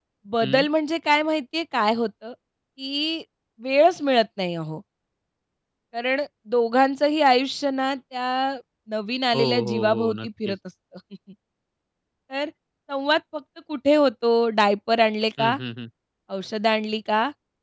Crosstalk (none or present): present